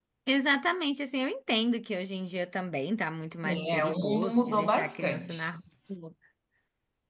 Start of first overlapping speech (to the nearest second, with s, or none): 3 s